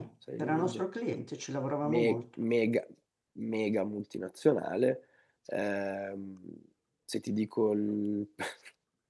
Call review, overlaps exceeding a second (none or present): none